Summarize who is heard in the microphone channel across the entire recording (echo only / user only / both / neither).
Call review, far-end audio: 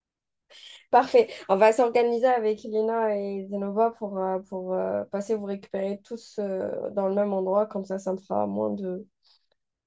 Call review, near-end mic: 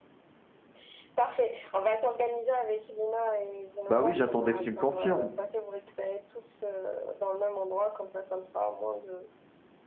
both